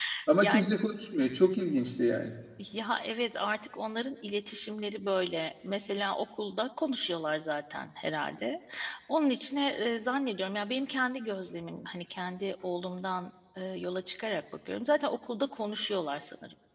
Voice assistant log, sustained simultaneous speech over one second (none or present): none